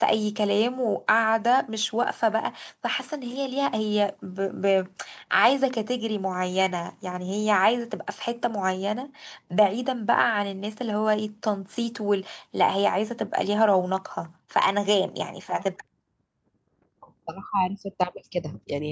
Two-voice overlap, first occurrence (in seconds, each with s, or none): none